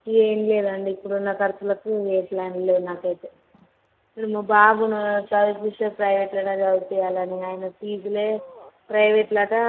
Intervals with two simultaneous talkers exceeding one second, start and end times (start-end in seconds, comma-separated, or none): none